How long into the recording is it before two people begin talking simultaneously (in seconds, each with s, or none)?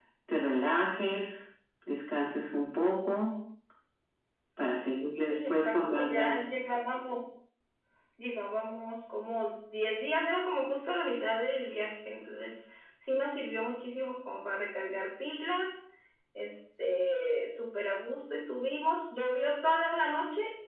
5.3 s